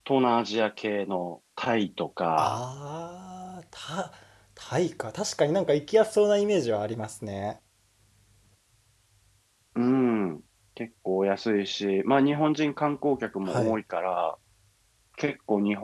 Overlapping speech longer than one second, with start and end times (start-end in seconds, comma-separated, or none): none